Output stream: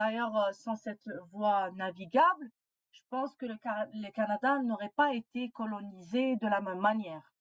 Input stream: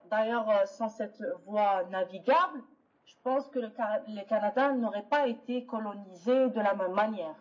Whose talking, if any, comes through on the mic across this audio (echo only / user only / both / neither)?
echo only